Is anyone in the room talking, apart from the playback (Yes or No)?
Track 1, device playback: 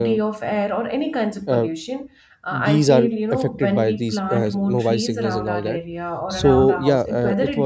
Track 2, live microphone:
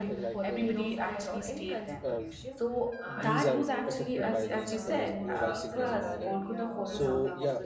Yes